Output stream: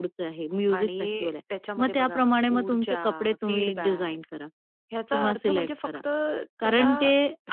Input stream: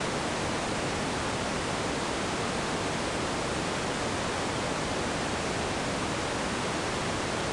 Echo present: No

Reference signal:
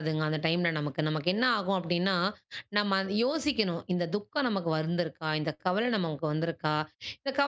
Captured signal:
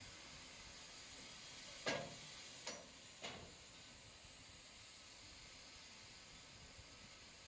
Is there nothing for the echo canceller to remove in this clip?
Yes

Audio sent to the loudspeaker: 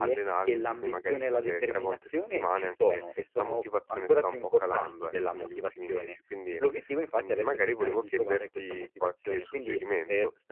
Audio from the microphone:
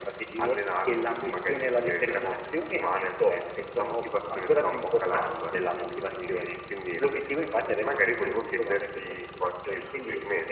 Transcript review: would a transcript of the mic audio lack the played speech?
No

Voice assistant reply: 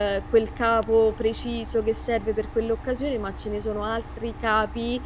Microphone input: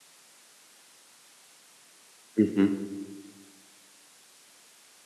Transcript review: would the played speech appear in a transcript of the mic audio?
No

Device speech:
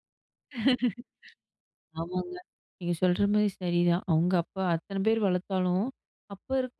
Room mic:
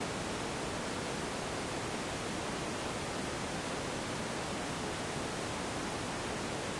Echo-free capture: Yes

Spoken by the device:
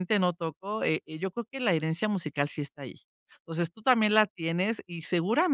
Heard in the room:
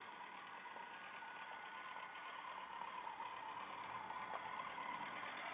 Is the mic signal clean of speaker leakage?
Yes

